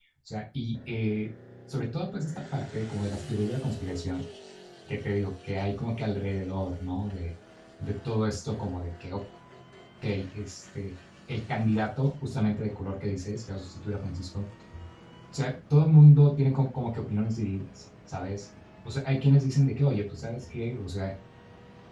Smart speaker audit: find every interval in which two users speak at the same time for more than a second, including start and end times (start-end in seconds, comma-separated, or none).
none